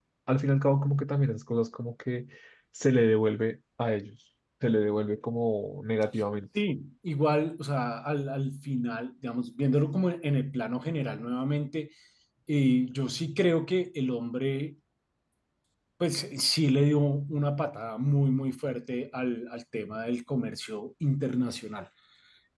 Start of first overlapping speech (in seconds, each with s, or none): none